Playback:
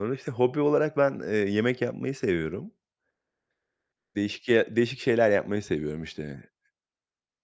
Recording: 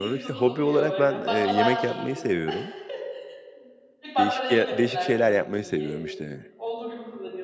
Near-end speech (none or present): present